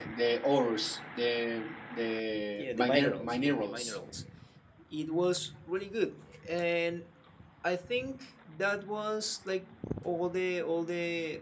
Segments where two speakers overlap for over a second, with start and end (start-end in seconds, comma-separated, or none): 2.6-3.9